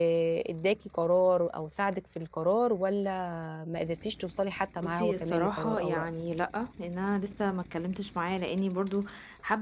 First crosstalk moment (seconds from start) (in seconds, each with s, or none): 4.8 s